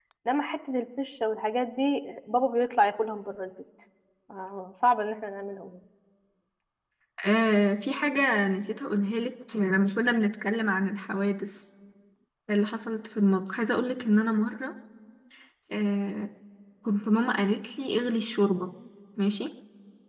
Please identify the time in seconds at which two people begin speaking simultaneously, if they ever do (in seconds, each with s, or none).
none